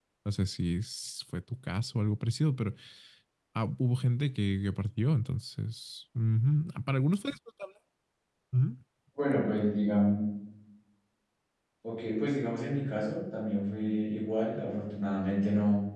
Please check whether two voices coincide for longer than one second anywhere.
No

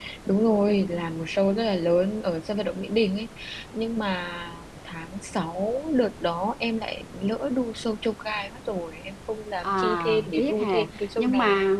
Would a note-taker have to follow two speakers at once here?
Yes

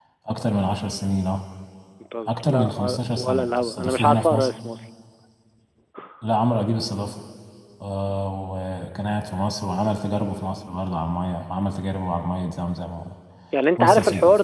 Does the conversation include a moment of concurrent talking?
Yes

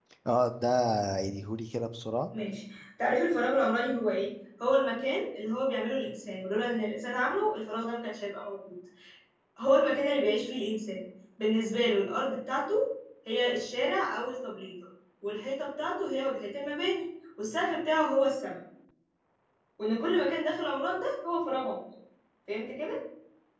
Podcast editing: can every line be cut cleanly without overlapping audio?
Yes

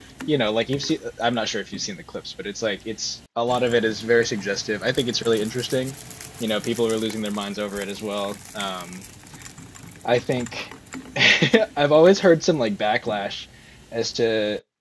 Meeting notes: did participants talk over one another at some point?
No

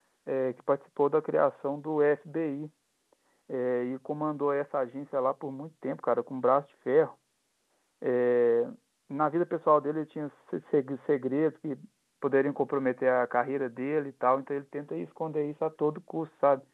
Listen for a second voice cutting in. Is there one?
No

